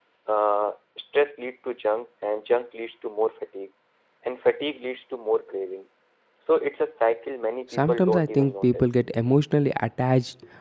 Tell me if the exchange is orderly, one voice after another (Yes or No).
No